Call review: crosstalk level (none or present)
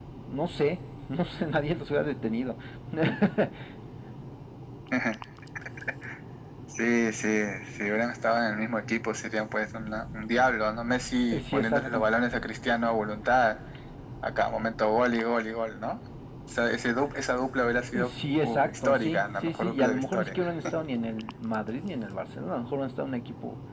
present